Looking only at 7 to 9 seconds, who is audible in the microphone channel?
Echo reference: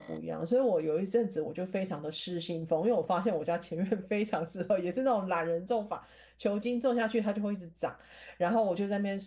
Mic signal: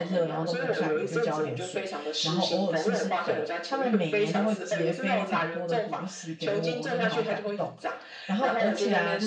both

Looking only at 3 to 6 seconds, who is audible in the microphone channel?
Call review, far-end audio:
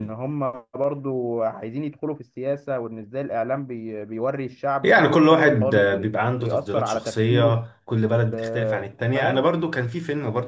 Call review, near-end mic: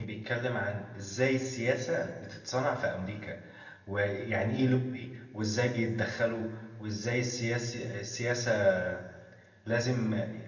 user only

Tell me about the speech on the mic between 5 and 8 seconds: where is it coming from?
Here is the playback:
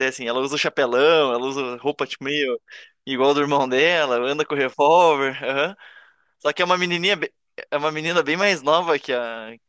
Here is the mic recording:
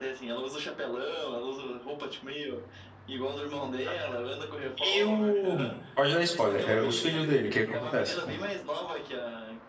both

